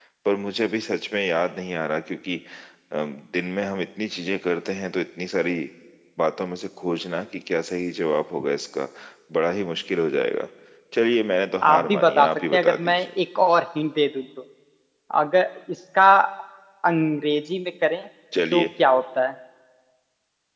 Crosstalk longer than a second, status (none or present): present